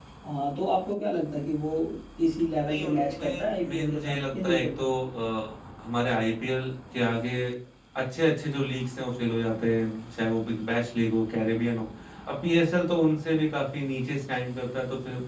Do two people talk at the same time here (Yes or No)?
Yes